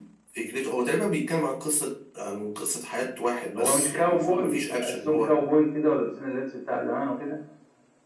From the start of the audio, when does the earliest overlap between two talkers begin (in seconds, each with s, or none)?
3.5 s